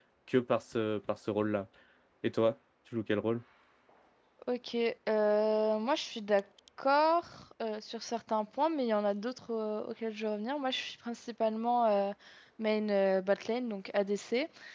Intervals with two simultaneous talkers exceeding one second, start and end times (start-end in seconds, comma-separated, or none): none